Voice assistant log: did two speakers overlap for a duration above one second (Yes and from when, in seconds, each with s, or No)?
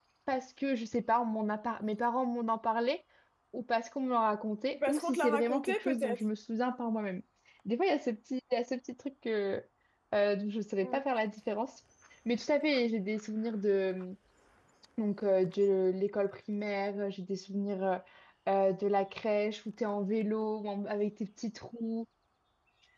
Yes, from 4.7 s